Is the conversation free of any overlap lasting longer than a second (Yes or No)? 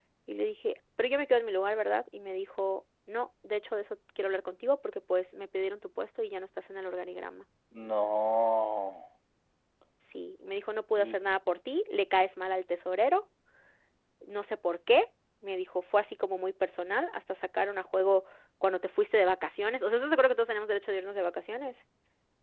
Yes